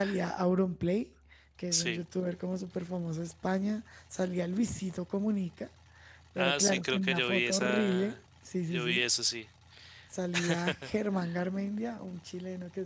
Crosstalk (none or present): present